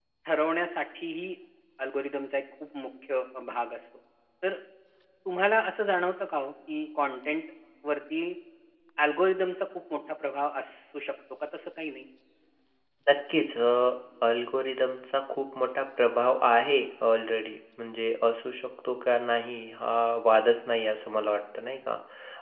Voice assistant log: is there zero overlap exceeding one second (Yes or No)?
Yes